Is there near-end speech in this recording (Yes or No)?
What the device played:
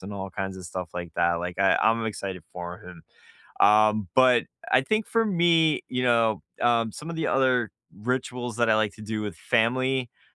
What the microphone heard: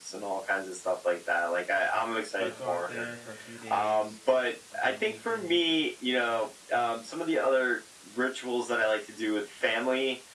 Yes